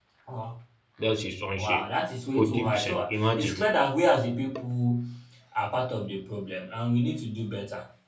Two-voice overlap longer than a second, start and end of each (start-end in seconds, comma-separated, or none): 2.4-3.6